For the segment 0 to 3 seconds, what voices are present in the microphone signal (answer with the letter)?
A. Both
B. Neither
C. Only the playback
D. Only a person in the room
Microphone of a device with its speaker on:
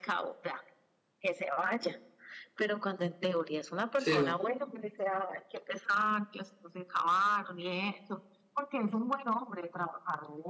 C